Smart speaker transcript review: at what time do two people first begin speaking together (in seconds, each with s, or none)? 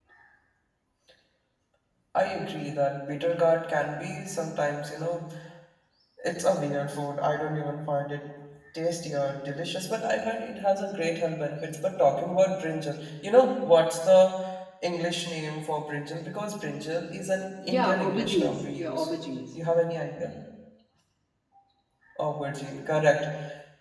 17.6 s